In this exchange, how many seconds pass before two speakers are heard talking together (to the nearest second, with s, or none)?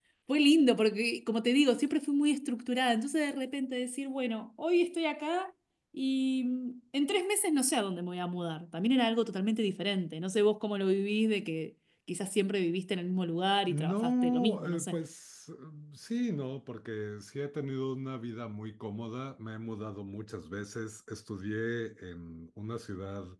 14 s